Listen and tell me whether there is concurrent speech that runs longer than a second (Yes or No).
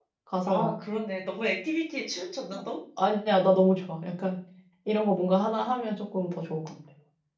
No